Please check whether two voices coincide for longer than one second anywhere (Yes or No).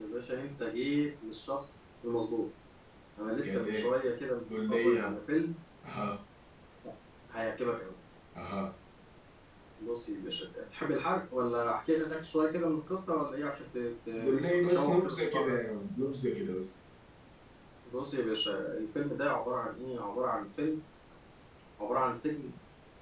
Yes